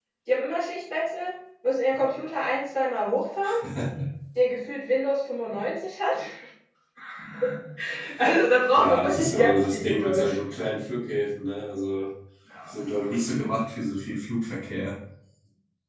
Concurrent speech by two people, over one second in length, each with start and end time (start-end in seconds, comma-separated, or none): 8.7-10.4